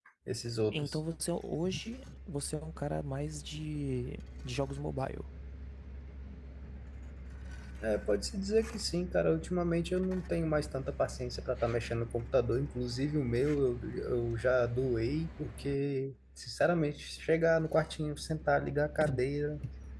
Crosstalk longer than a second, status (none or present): none